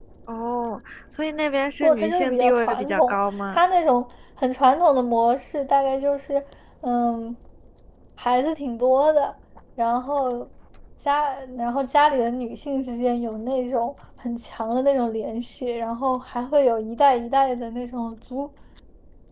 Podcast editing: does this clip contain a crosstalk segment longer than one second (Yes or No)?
Yes